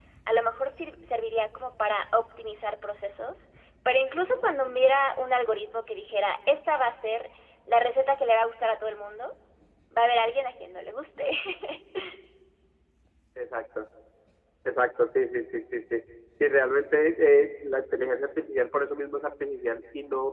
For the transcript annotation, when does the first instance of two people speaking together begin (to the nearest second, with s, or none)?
none